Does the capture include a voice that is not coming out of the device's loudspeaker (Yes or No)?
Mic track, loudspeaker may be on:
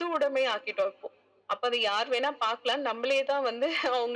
No